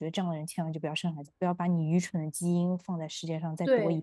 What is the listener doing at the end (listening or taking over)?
taking over